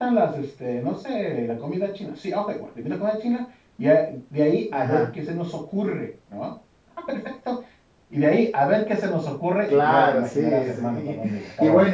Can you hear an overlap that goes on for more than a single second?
Yes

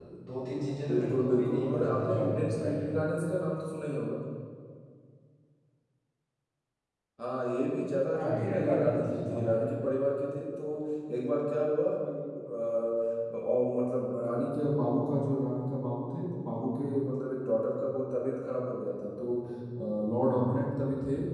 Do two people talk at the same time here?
Yes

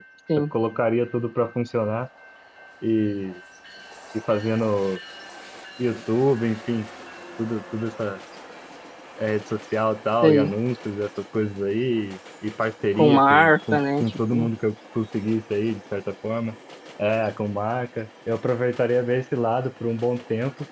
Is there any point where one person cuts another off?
Yes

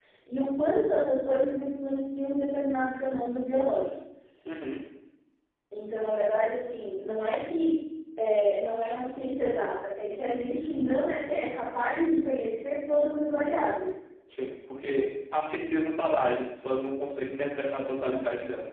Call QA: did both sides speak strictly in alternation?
Yes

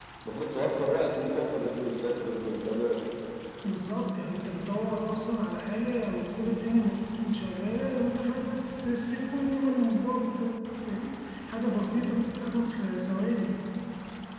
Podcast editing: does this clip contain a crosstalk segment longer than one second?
No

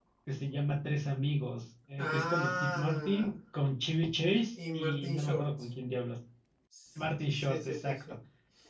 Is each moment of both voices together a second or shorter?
No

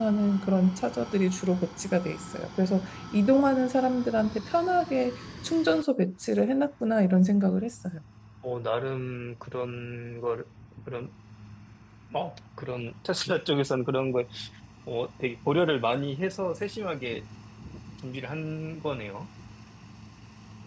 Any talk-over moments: No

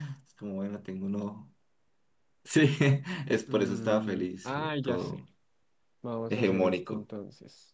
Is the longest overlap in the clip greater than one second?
Yes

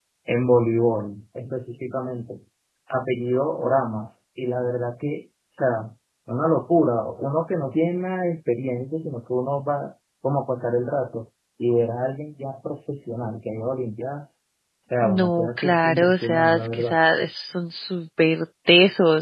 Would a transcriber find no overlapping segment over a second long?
No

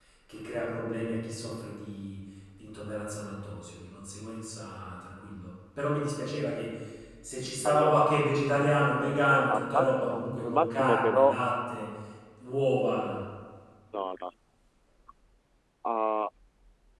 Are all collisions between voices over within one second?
No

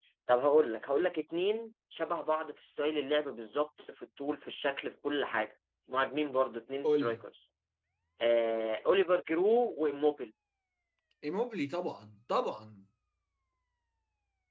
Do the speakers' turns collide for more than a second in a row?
No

